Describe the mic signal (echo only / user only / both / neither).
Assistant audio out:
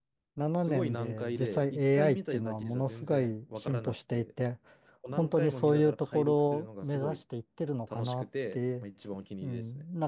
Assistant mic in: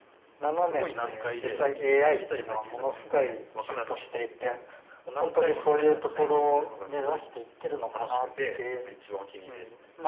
echo only